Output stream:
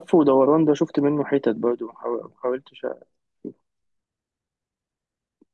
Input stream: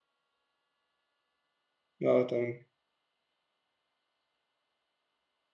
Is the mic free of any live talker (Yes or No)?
No